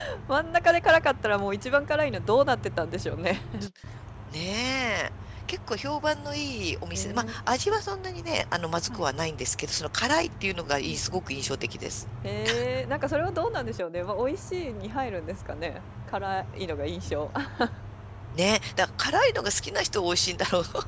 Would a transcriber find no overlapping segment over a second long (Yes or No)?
Yes